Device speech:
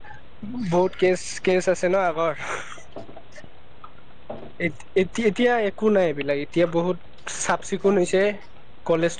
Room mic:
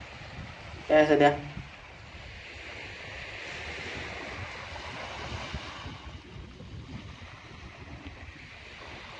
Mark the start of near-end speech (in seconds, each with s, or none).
0.8 s